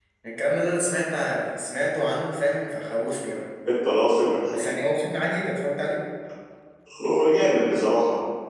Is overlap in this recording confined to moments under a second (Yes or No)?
Yes